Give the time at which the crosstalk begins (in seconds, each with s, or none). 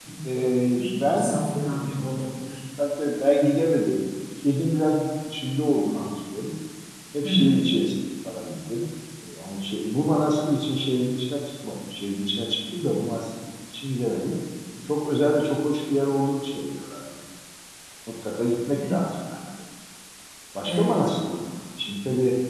0.8 s